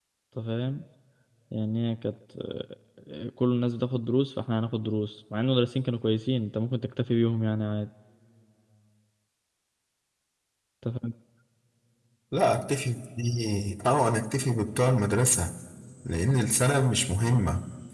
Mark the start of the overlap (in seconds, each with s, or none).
none